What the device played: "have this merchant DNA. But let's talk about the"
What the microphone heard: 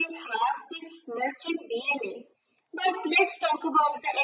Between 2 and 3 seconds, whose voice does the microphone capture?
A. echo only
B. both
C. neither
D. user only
A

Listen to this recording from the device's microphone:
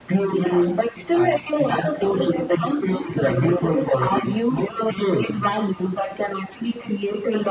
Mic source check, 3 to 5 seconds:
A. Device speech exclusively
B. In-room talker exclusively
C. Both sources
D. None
A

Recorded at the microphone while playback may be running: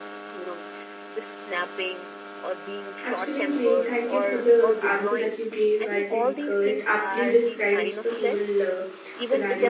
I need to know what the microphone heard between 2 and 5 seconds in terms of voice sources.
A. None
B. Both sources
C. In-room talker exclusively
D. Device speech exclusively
B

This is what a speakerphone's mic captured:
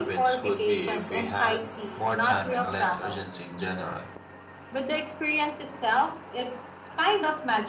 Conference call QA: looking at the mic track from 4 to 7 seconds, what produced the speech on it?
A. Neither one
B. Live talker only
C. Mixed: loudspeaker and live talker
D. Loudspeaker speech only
D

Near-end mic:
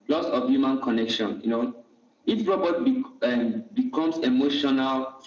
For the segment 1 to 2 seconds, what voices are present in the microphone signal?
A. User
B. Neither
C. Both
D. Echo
D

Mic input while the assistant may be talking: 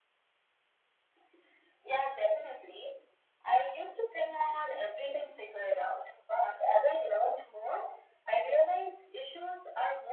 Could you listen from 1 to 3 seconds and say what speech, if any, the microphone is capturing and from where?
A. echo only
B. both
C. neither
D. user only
A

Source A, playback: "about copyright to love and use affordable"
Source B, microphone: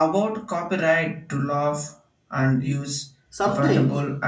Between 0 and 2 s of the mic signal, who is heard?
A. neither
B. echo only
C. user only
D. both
B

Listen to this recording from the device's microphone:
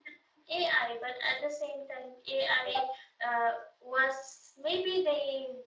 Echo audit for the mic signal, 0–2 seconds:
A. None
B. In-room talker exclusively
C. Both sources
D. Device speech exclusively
D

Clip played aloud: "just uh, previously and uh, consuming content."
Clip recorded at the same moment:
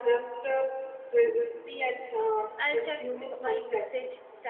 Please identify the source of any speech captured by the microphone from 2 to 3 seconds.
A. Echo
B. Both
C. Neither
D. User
B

